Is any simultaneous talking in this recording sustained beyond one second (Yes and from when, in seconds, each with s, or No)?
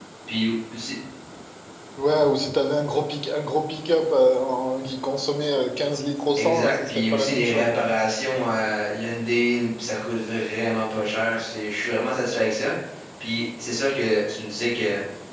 Yes, from 6.4 s